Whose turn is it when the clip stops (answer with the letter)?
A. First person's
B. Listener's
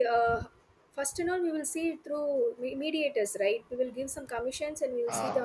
A